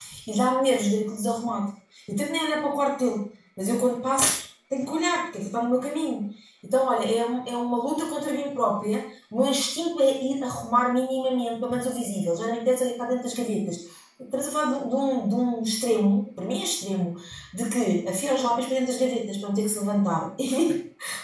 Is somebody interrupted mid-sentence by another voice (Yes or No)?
No